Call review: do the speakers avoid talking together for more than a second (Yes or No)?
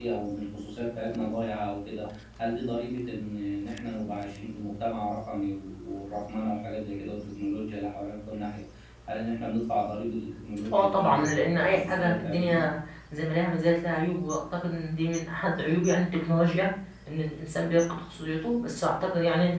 No